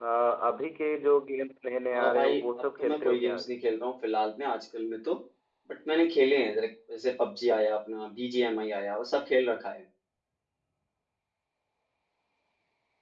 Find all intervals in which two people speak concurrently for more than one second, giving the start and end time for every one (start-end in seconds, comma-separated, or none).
1.9-3.4